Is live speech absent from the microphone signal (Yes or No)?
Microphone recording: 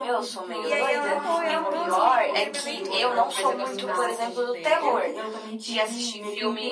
No